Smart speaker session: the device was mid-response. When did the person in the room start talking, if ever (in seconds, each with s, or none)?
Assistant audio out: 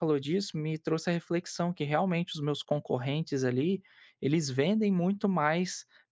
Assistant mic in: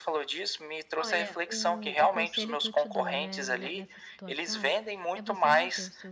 1.0 s